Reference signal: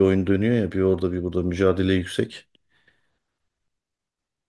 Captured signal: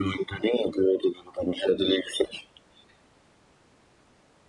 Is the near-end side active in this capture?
No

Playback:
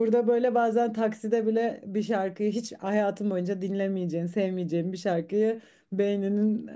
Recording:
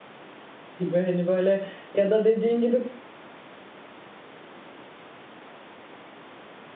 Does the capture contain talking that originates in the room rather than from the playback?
Yes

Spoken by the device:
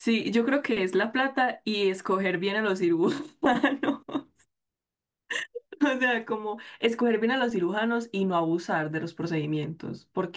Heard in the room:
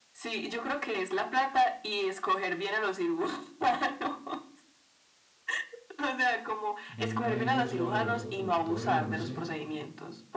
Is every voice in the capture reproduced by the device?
No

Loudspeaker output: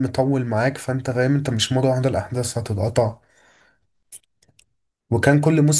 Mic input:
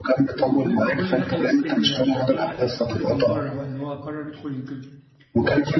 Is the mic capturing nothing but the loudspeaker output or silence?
No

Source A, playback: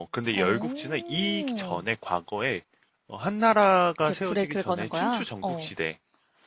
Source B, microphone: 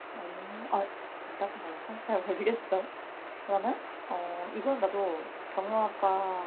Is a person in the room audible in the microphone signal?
Yes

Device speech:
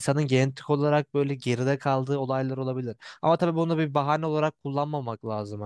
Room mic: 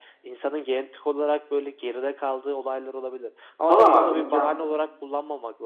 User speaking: Yes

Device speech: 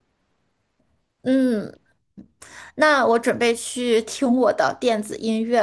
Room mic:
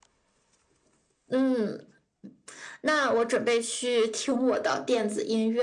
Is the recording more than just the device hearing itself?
No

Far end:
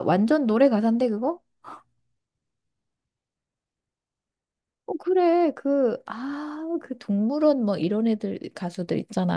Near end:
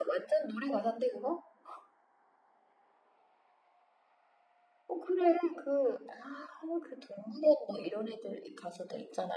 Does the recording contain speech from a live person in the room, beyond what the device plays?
No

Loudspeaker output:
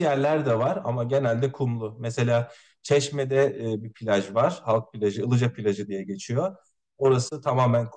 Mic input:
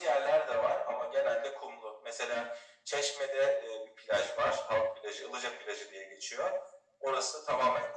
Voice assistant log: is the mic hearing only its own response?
Yes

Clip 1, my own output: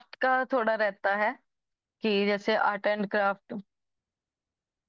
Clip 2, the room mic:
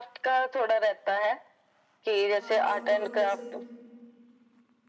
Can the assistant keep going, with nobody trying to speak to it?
No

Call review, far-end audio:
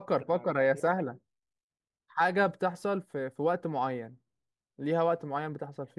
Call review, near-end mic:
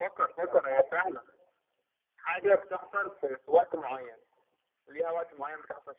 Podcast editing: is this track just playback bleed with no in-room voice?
Yes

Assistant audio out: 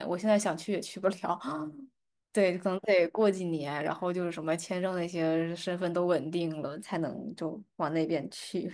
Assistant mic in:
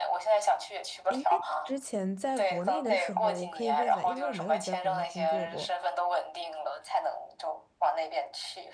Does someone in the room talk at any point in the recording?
Yes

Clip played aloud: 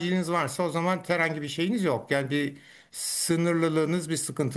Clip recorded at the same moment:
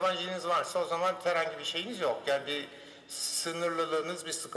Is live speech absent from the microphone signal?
Yes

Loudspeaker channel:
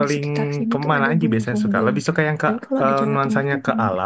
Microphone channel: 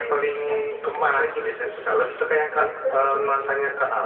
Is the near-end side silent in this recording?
Yes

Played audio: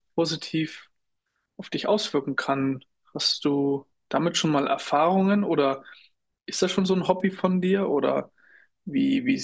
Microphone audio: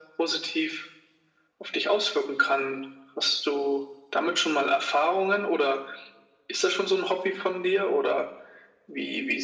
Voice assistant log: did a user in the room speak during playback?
No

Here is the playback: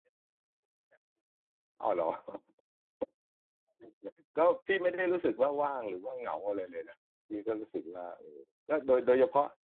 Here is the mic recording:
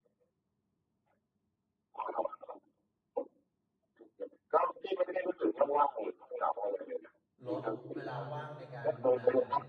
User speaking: Yes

